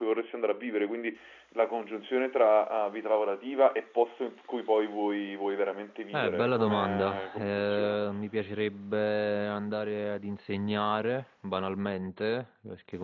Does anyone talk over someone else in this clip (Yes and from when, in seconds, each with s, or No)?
Yes, from 6.1 s